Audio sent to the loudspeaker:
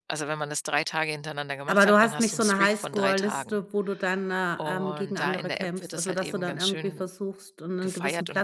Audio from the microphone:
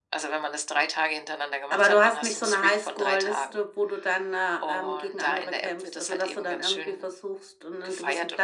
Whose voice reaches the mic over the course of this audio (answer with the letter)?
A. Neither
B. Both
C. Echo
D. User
C